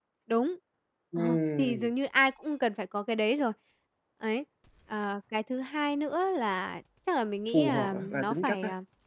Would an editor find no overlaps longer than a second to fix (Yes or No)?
No